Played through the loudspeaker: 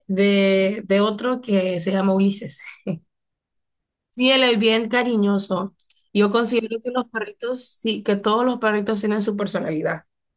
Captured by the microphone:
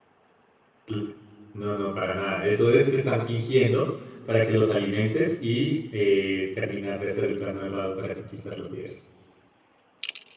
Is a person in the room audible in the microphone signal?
Yes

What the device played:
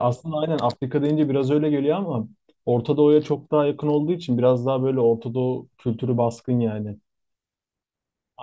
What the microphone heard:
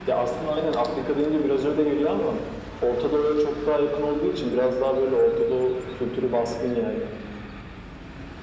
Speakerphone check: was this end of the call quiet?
Yes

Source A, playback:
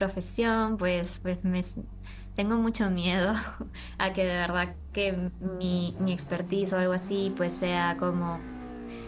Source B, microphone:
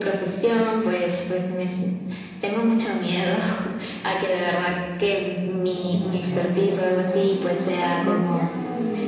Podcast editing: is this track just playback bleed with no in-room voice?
No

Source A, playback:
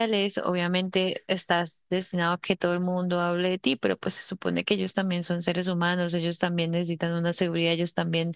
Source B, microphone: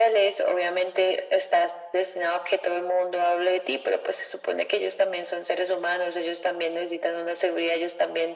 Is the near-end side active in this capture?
No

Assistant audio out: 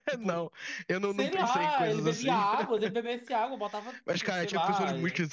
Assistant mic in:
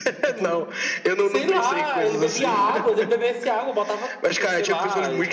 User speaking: No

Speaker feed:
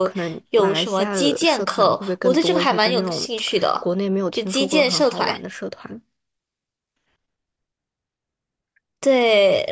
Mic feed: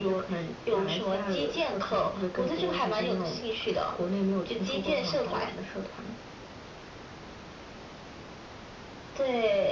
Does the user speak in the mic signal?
No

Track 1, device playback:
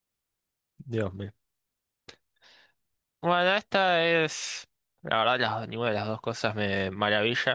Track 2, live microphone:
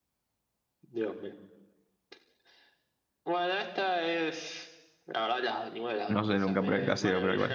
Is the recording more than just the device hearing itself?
Yes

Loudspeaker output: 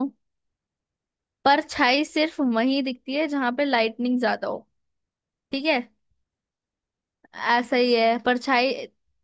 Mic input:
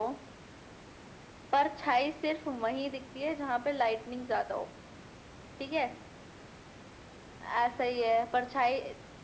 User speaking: No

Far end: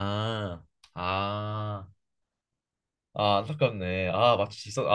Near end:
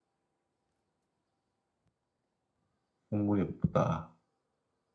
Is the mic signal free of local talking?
No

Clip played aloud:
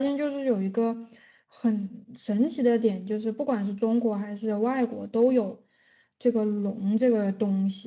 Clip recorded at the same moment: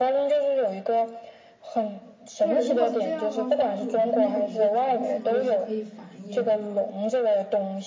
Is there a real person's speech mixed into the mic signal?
Yes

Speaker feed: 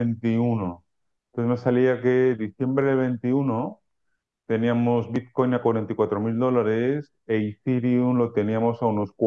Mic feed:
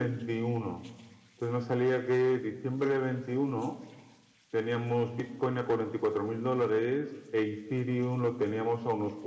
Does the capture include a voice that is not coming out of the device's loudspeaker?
No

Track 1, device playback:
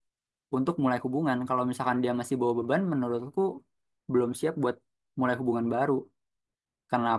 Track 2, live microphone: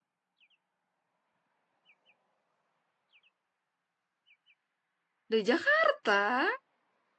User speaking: Yes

